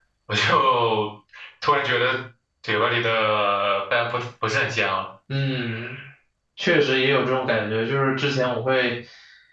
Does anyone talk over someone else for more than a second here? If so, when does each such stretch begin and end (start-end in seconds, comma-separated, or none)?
none